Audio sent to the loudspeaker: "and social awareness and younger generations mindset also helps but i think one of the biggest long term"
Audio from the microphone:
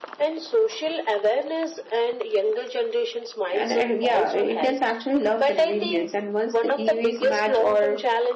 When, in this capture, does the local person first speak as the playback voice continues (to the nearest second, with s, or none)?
4 s